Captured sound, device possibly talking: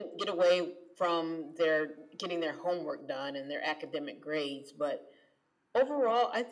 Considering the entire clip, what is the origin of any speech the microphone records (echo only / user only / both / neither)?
echo only